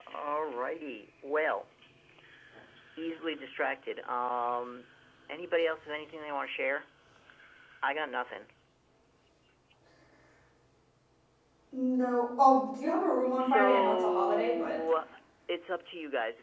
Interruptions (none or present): present